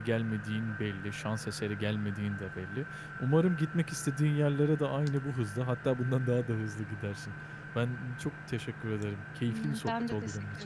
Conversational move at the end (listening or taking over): taking over